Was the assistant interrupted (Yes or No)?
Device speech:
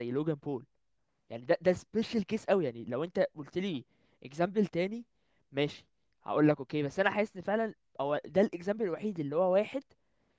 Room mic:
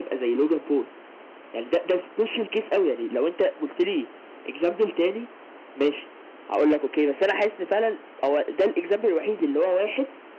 No